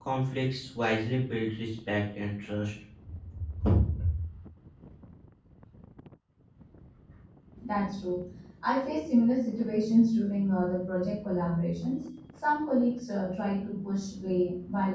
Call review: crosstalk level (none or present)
none